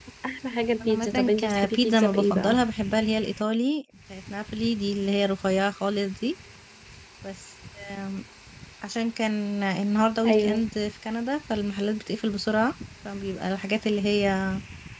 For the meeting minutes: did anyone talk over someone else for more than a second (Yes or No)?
Yes